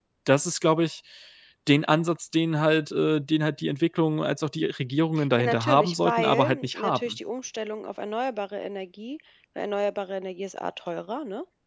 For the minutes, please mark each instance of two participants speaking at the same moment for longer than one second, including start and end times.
5.4-7.2

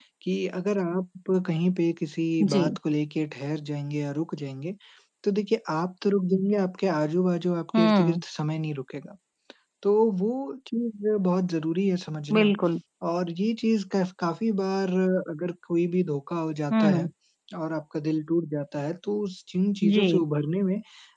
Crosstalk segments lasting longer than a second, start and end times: none

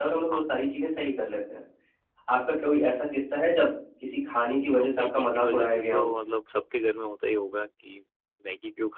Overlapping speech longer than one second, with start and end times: 4.8-6.1

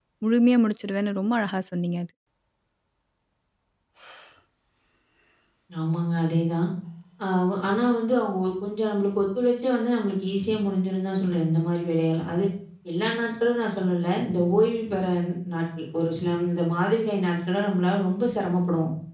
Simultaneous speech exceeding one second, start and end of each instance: none

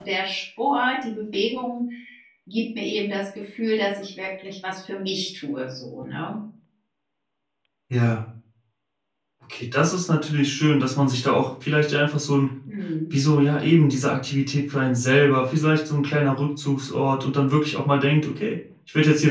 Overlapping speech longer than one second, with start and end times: none

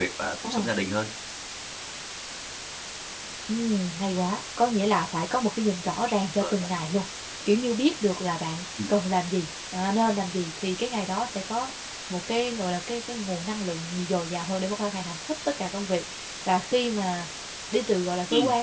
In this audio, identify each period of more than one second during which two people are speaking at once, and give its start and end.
none

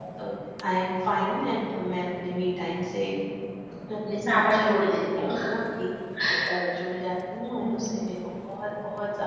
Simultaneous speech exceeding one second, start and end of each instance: none

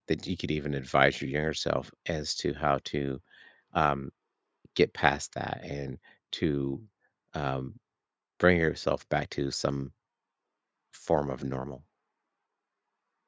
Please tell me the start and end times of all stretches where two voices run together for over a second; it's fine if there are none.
none

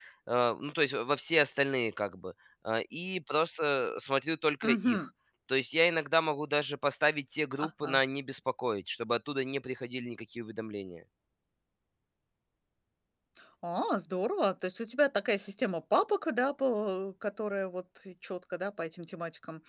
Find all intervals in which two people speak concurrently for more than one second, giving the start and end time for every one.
none

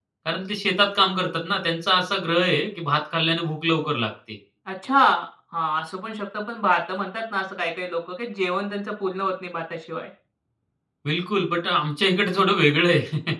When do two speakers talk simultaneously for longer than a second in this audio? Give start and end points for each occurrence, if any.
none

